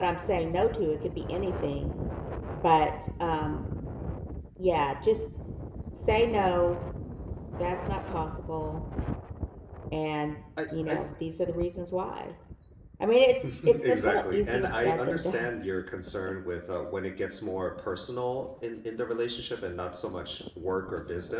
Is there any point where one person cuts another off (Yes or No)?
Yes